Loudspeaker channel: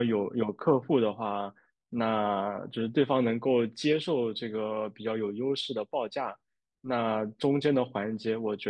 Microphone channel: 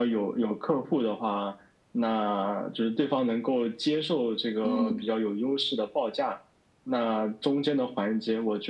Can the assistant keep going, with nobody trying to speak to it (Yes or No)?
No